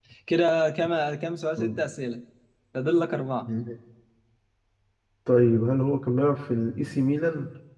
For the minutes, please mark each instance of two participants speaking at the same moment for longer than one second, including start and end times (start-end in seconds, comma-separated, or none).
none